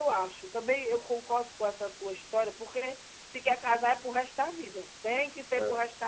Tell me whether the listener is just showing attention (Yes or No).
No